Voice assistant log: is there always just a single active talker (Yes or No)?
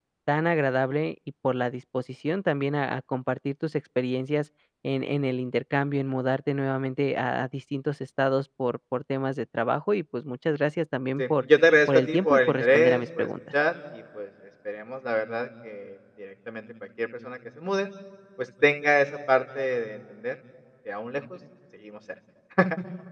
No